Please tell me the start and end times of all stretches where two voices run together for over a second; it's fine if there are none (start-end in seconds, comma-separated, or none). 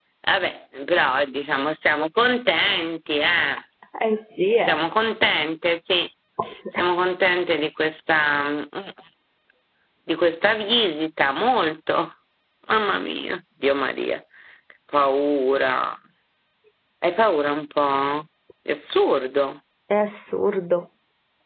none